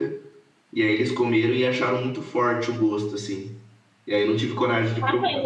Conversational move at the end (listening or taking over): taking over